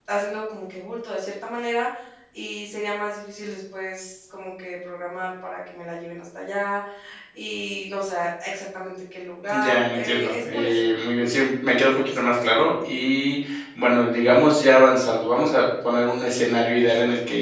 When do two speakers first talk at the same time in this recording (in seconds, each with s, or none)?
9.5 s